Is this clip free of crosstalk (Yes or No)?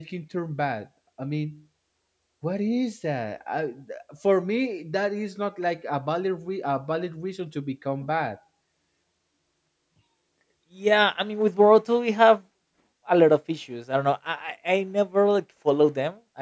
Yes